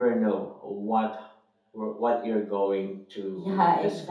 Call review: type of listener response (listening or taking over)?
taking over